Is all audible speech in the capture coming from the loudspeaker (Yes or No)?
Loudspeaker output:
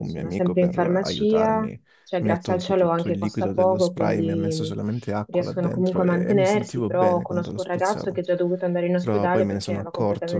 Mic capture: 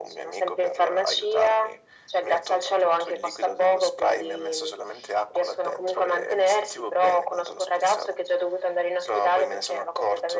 Yes